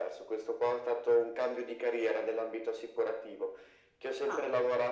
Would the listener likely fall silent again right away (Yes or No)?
Yes